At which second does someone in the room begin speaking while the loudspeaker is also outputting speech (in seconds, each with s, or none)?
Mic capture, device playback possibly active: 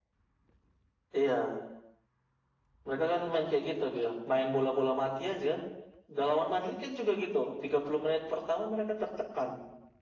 none